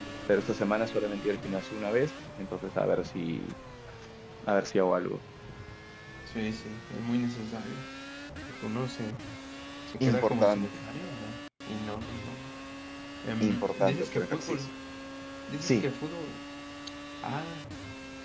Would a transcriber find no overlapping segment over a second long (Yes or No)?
No